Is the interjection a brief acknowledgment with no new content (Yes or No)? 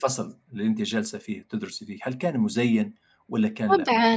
No